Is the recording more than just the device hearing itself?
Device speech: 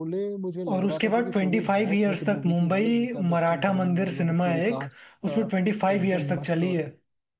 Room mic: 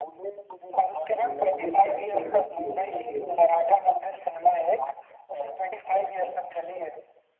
Yes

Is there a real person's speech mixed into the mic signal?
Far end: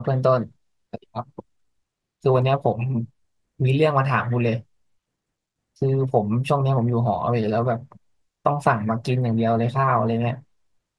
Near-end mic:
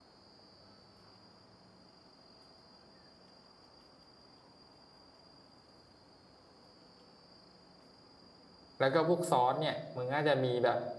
Yes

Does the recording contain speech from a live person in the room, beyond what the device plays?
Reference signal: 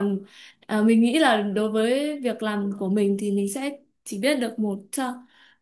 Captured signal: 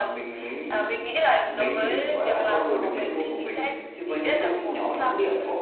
Yes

